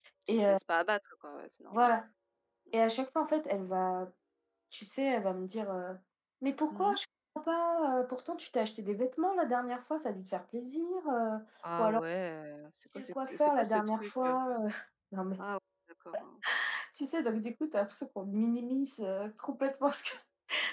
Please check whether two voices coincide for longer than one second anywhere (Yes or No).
Yes